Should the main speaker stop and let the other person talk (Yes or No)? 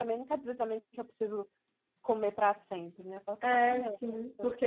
Yes